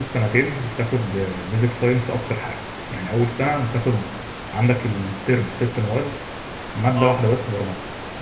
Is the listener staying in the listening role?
Yes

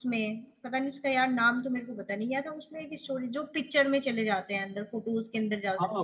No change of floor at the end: No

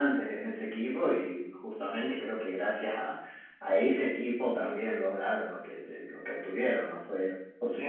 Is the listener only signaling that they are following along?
No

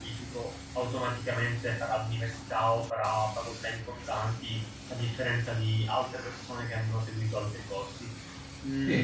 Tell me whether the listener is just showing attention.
No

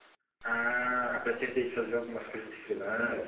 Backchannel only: No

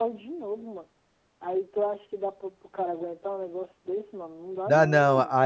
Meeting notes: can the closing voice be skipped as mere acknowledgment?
No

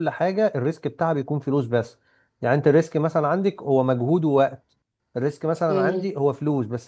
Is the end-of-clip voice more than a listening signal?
No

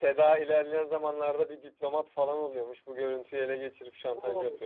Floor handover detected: Yes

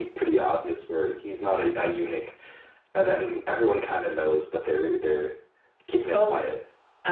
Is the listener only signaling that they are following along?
No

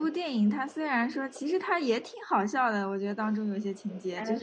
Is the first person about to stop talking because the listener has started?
No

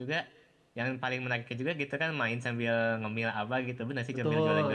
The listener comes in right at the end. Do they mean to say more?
Yes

